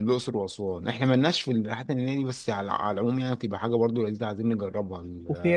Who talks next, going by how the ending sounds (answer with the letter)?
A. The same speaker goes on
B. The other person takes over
B